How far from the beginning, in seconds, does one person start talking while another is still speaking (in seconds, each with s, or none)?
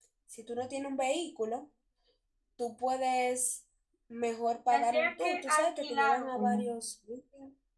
4.7 s